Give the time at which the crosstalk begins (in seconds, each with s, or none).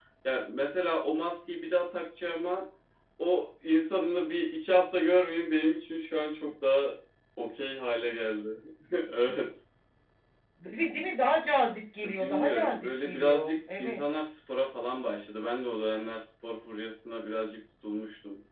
12.0 s